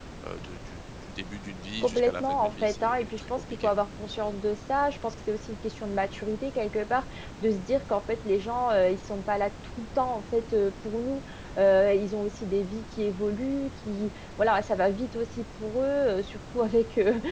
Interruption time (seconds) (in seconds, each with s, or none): 1.8 s